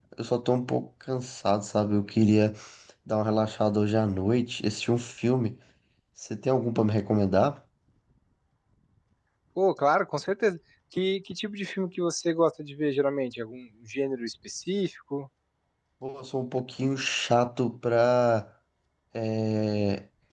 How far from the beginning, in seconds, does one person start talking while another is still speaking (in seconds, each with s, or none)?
none